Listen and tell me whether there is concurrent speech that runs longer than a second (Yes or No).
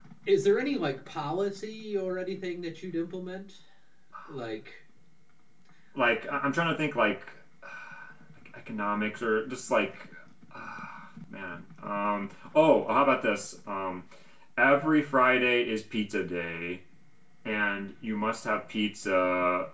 No